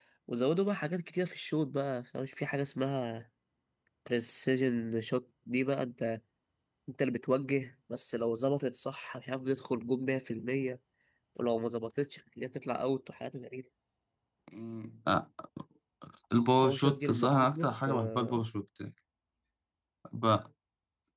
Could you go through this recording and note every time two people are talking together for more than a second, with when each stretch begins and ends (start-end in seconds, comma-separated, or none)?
16.6-18.4